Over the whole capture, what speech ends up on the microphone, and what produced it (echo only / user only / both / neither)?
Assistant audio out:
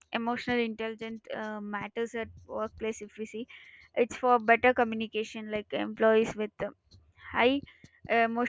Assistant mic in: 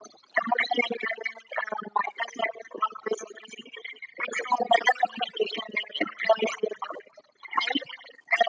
echo only